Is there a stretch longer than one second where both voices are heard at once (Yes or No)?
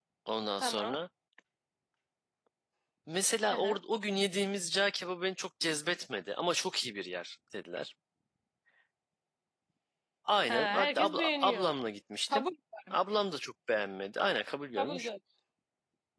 Yes